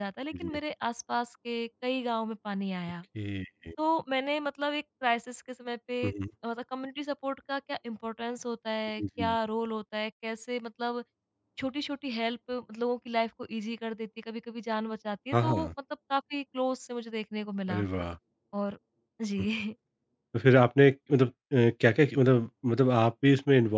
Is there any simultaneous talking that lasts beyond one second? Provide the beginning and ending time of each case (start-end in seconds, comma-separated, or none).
none